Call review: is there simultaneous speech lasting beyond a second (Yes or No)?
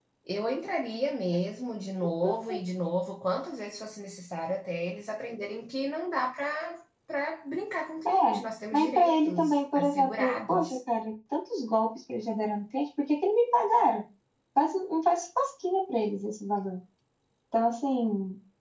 Yes